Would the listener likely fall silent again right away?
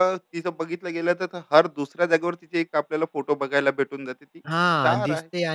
No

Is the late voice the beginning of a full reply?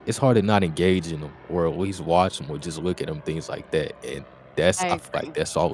No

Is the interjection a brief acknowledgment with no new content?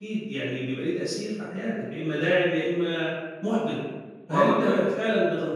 Yes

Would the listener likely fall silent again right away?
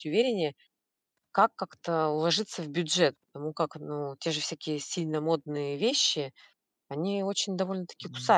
No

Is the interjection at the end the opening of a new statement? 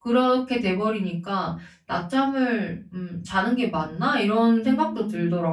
Yes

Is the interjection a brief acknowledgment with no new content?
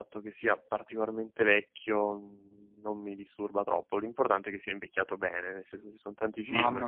No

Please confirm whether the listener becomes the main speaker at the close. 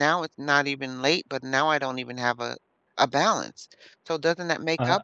Yes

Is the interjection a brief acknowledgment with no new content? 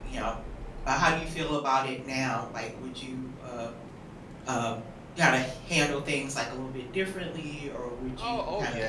No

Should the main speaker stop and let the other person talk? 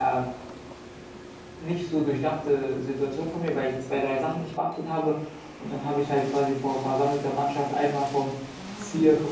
No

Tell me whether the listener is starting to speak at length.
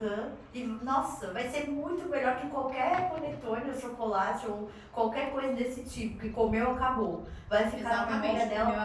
Yes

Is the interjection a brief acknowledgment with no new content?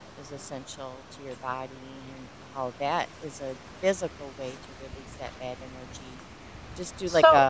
No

